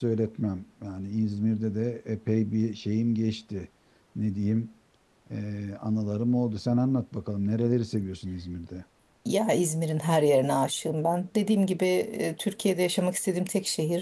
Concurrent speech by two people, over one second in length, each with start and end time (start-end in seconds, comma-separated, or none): none